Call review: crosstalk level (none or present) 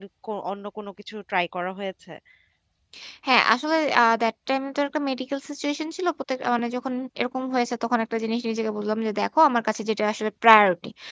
none